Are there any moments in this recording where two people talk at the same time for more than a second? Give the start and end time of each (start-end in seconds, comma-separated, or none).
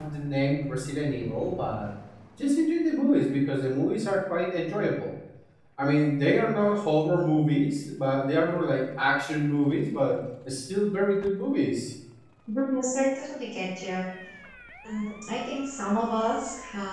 none